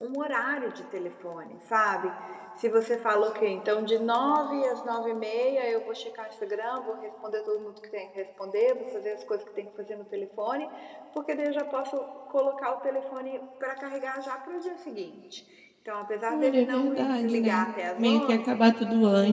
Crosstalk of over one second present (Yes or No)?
Yes